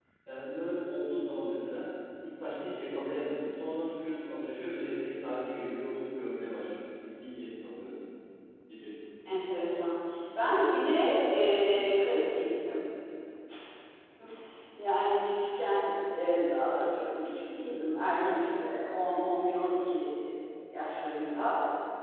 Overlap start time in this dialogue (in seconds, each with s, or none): none